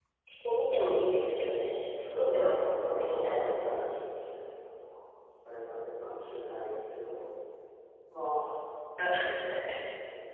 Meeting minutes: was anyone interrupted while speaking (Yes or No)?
Yes